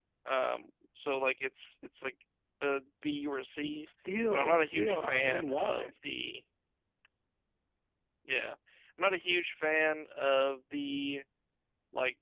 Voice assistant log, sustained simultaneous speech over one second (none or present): present